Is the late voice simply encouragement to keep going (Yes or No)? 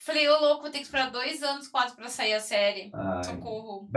No